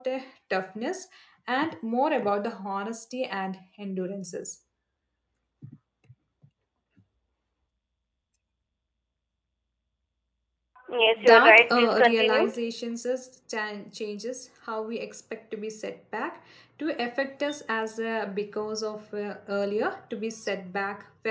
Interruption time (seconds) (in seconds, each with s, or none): 11.2 s